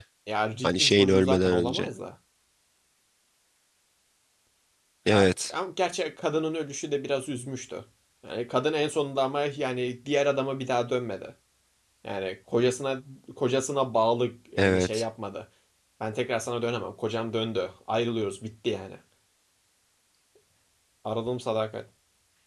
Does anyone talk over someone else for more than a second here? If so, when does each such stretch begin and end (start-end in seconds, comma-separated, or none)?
0.6-1.9